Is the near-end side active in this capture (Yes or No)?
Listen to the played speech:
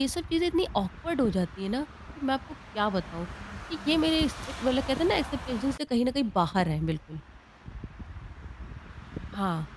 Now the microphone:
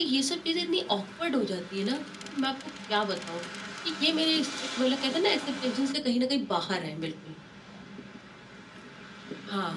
No